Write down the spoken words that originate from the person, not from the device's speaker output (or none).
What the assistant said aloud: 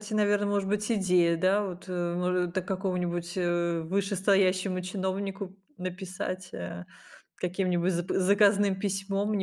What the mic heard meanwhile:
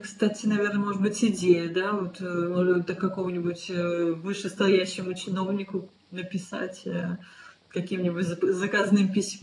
none